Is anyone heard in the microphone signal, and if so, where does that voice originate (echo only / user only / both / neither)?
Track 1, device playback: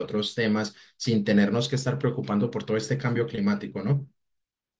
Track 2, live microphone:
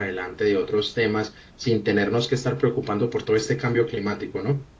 echo only